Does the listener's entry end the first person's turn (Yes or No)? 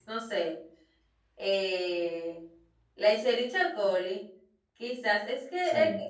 No